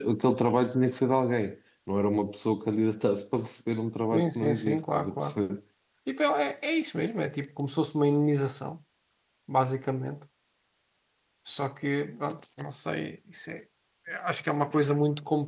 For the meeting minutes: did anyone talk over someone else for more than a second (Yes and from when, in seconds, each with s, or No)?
Yes, from 4.1 s